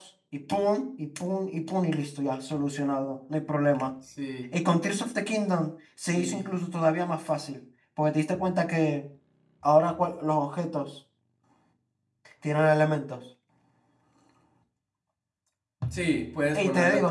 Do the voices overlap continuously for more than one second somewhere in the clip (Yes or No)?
No